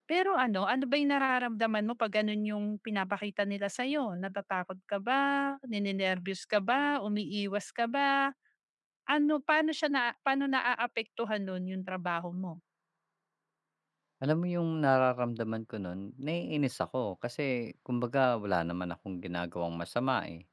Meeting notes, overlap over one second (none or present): none